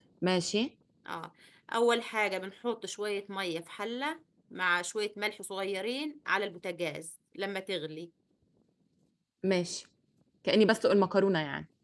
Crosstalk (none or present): none